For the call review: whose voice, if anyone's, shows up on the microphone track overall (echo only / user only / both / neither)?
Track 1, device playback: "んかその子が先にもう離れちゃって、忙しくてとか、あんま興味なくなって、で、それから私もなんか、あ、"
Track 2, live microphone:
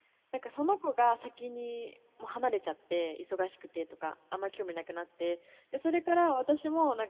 echo only